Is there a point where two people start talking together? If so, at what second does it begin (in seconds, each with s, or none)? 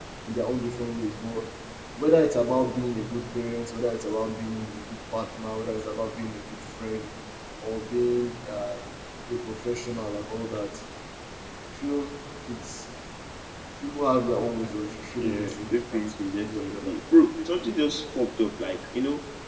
15.2 s